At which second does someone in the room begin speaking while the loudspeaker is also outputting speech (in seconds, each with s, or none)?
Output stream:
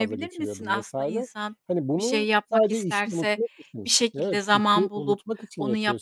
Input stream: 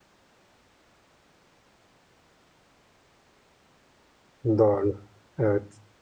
4.4 s